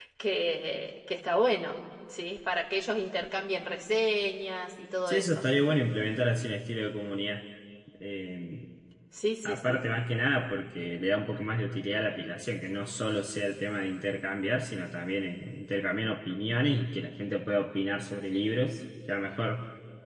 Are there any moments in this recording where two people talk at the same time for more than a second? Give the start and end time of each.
none

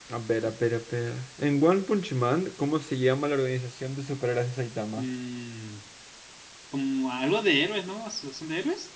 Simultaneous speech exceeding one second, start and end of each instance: none

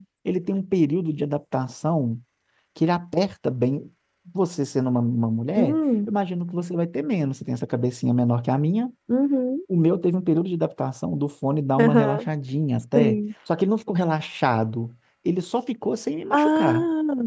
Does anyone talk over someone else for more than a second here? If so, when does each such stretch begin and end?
none

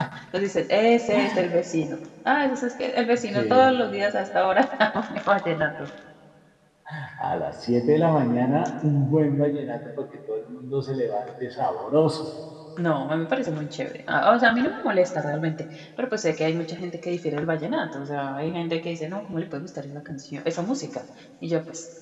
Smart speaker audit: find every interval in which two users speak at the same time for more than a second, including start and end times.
none

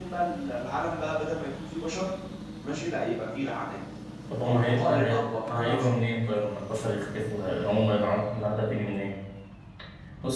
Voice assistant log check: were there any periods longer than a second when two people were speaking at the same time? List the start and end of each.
4.4-6.0

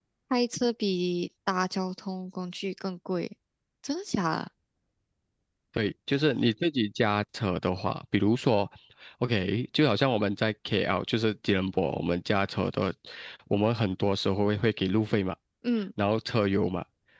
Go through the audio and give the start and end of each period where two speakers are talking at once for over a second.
none

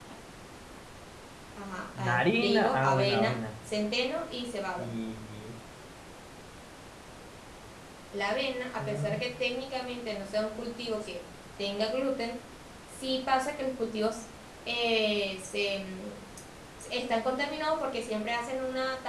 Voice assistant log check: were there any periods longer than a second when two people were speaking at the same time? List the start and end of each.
2.0-3.4

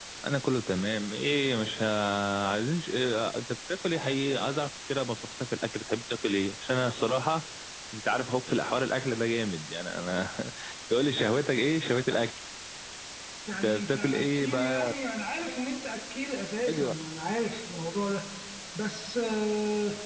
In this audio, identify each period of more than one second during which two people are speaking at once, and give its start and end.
13.6-14.9

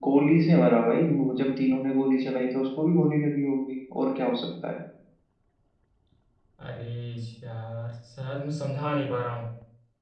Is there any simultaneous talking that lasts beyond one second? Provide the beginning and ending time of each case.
none

